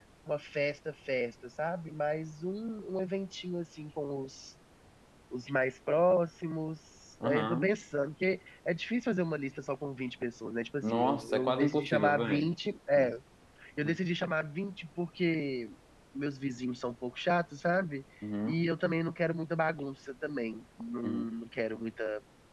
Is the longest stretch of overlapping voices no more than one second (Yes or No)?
No